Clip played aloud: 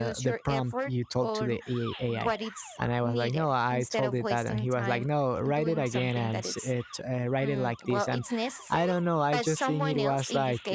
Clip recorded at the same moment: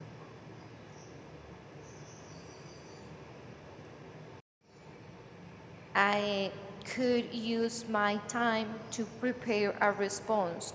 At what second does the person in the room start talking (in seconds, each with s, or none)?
5.9 s